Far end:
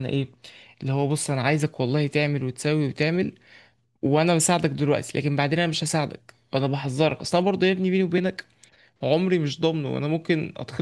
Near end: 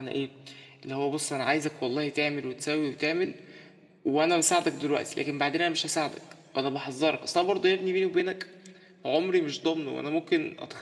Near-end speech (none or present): none